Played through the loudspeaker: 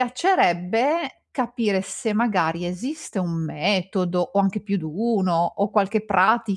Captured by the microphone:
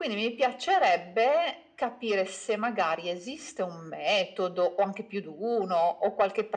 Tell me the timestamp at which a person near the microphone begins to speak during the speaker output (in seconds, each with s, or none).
none